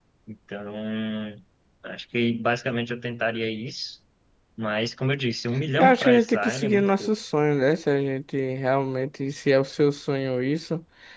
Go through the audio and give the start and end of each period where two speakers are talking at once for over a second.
5.8-7.1

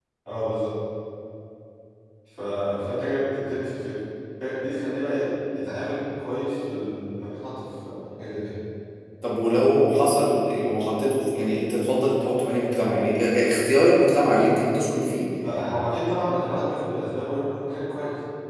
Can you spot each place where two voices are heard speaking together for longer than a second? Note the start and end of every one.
none

